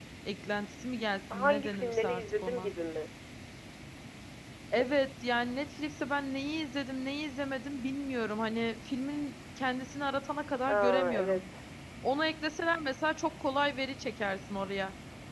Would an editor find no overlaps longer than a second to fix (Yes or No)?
No